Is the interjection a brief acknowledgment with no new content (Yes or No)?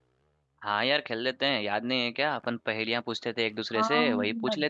No